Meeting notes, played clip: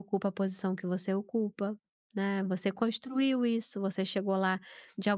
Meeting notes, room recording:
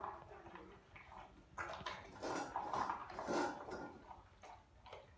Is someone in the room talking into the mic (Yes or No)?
No